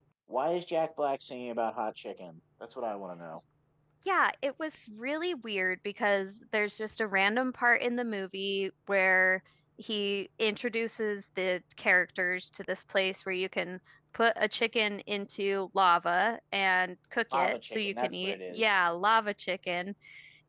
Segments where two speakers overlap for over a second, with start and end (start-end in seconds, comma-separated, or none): 17.3-18.7